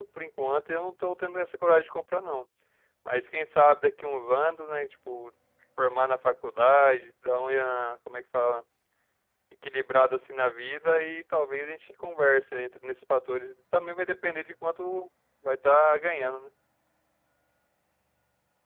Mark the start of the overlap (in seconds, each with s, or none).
none